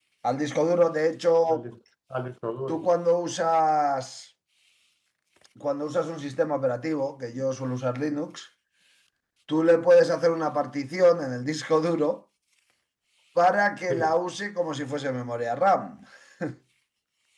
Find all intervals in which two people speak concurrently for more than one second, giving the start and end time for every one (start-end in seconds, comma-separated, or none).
none